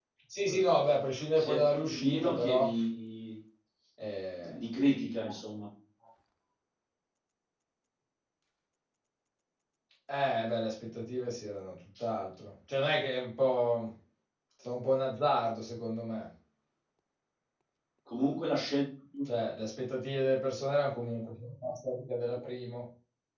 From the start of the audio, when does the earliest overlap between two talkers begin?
1.4 s

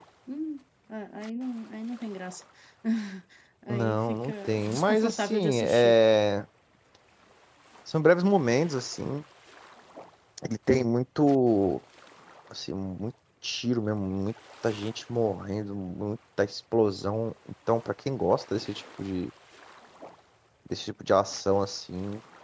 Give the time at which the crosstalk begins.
3.7 s

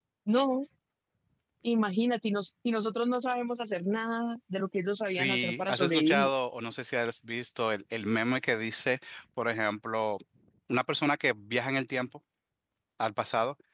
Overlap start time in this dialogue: 5.1 s

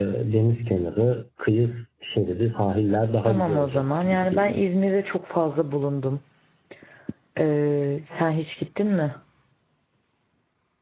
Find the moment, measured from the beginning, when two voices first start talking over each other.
3.2 s

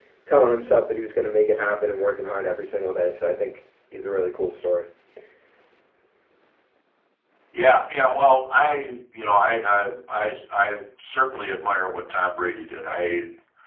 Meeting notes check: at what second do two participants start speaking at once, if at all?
none

